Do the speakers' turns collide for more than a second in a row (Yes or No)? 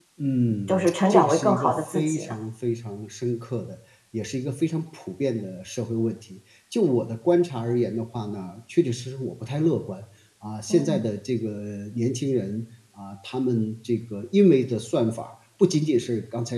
Yes